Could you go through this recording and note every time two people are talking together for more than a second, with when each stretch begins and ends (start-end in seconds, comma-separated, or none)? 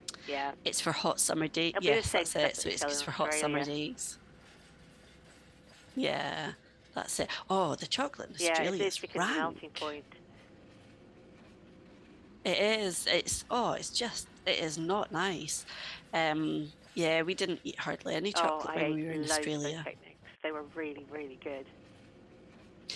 1.8-3.7, 8.4-9.9, 18.3-19.8